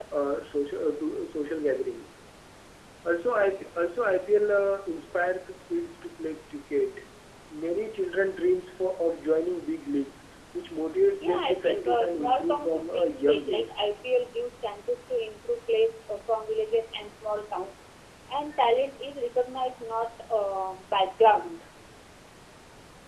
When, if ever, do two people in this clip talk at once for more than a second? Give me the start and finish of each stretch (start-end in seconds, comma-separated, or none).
11.2-13.6